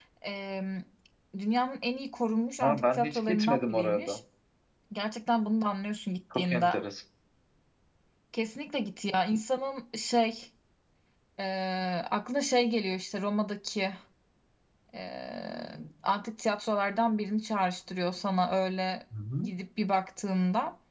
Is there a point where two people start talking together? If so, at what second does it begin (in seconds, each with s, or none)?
2.6 s